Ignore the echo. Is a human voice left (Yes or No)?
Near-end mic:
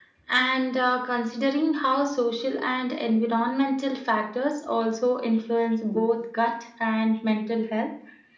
No